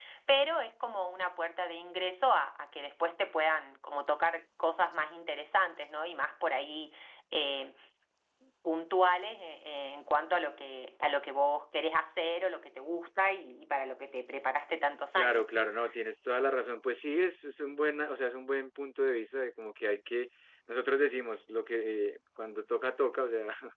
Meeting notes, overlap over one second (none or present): none